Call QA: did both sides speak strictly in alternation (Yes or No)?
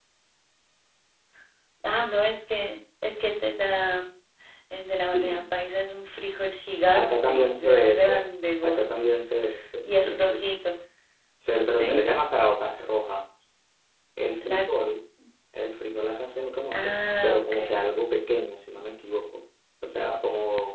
No